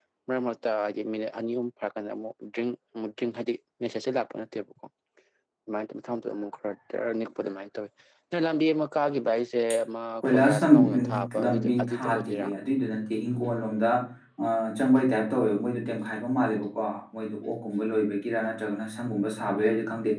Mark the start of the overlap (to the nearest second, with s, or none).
10 s